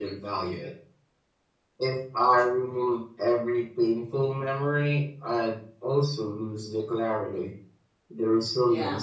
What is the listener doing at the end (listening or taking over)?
listening